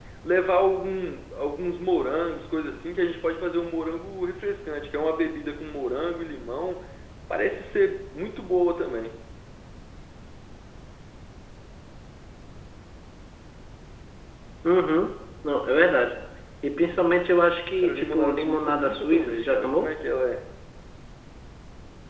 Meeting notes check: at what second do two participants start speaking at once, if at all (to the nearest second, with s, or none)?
18 s